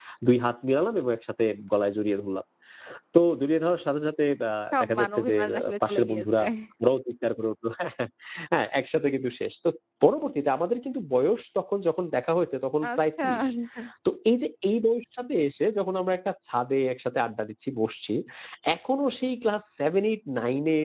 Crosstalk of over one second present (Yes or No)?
Yes